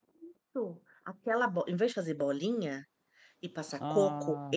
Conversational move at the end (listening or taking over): listening